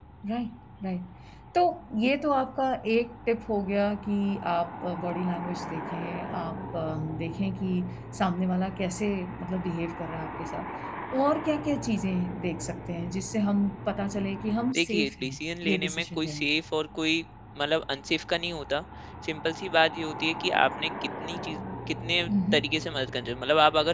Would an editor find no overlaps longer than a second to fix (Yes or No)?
No